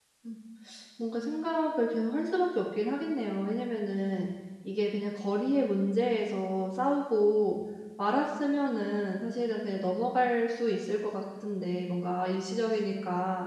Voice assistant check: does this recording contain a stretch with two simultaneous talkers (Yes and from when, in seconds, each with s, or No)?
No